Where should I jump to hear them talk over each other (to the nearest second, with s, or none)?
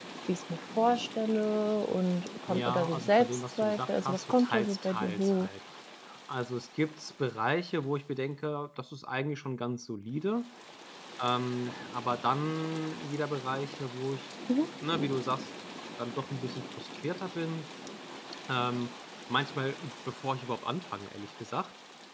2 s